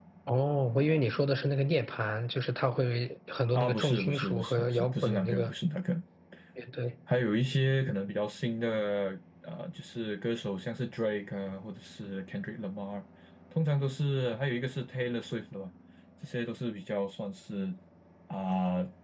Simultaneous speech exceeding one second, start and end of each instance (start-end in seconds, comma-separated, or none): 3.5-5.5